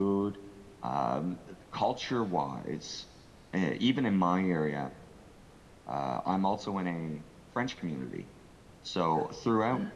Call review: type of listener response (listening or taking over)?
listening